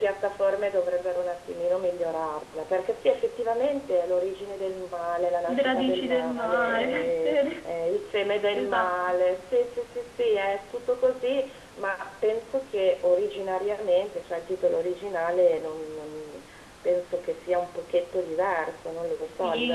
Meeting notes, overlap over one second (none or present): present